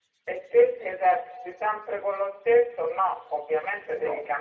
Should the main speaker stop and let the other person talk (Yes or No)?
No